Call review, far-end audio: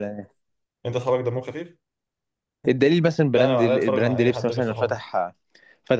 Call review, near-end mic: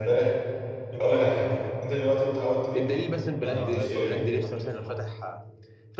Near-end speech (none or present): present